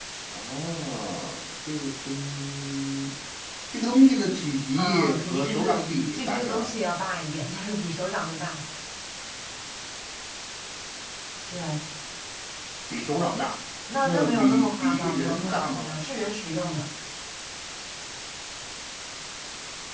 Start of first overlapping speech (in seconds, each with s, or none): 4.8 s